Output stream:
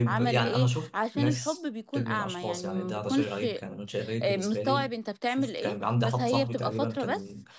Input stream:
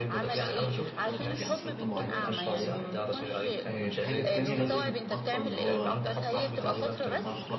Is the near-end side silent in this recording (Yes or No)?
No